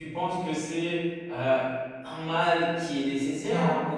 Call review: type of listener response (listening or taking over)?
listening